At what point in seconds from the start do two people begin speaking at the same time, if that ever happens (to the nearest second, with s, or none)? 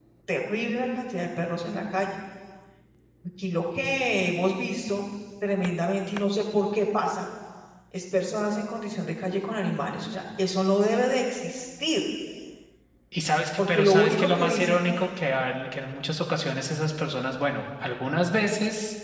14 s